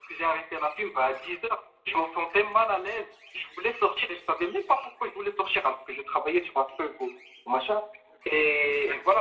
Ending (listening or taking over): listening